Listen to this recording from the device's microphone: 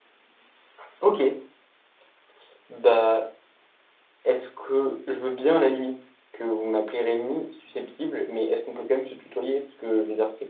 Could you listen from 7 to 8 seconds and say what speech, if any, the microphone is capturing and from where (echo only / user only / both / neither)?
user only